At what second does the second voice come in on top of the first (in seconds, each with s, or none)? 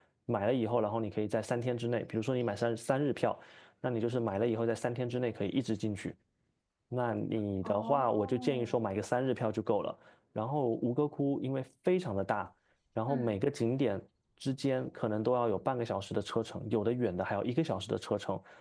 7.6 s